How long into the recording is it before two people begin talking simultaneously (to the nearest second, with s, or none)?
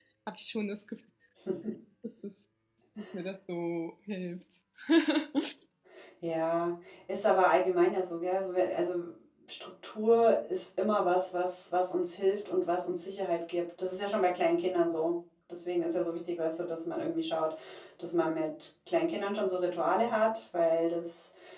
none